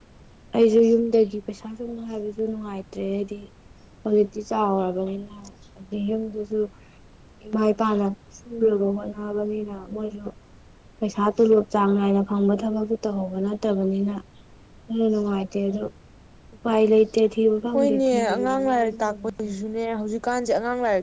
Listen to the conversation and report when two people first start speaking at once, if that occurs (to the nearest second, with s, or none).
18 s